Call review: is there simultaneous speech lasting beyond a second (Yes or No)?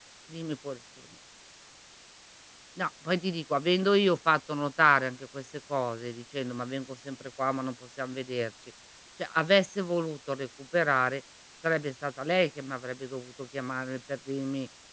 No